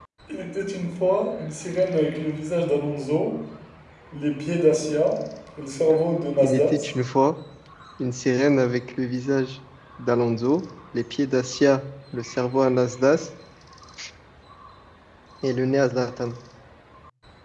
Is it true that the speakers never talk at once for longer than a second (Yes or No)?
Yes